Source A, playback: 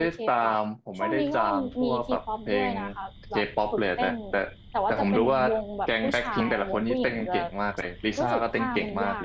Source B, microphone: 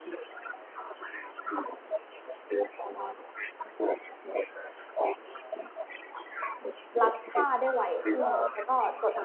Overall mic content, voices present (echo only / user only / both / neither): both